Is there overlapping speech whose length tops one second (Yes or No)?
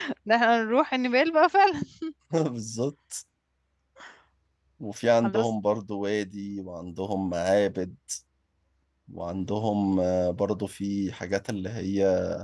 No